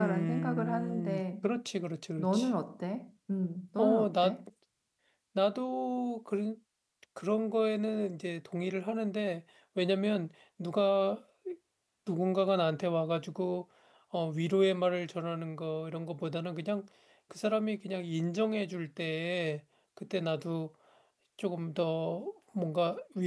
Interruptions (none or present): present